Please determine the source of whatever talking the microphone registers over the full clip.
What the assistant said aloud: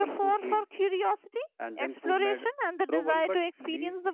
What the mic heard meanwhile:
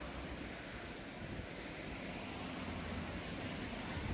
neither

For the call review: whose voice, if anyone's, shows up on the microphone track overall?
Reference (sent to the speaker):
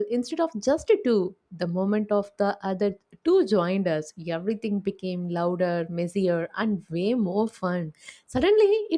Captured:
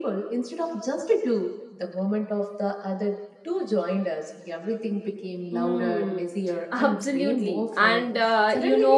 both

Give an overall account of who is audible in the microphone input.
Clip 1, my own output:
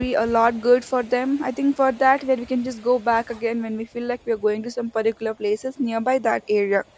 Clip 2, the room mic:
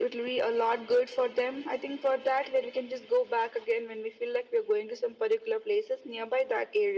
echo only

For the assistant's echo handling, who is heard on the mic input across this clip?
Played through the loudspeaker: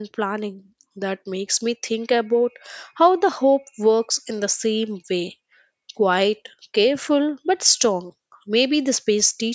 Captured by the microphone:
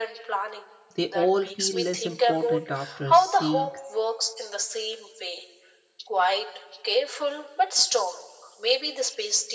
both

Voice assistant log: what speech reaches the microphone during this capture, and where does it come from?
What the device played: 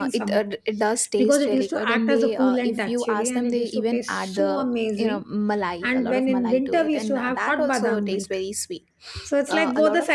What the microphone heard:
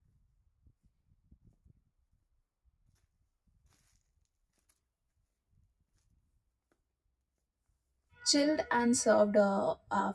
user only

